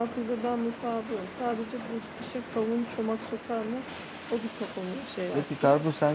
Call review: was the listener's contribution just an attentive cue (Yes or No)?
No